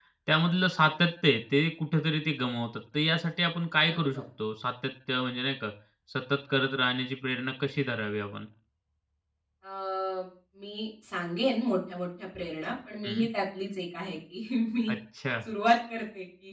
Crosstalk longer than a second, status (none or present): none